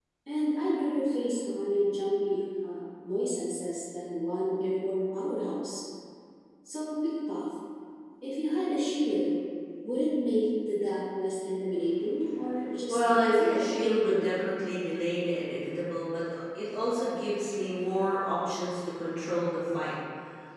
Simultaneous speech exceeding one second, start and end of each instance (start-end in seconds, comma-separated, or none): 12.9-14.5